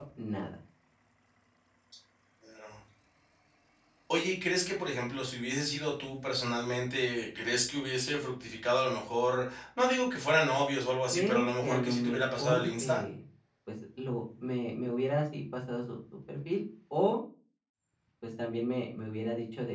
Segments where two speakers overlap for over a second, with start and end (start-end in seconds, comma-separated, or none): 11.1-13.0